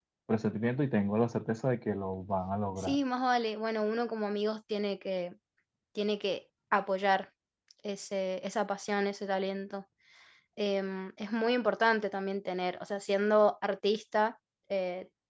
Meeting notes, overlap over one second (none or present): none